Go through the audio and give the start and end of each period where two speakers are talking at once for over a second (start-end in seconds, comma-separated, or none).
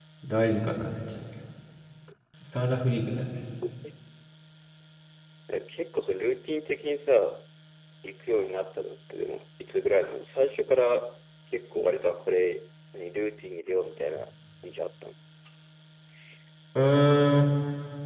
none